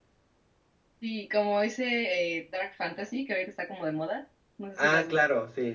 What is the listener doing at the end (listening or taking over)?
taking over